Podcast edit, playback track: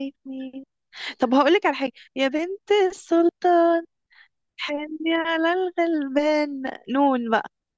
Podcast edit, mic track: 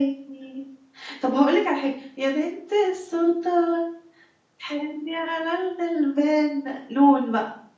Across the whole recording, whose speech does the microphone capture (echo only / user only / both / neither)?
echo only